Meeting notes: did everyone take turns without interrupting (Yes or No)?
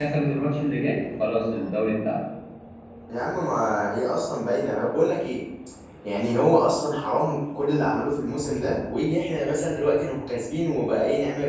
Yes